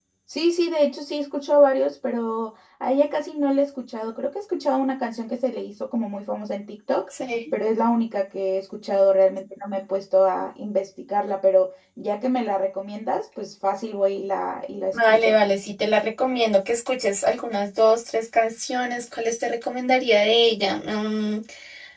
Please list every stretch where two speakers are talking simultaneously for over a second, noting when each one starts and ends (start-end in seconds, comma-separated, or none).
none